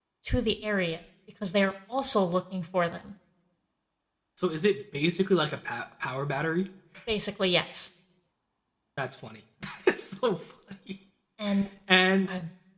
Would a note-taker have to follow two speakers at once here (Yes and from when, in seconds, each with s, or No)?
No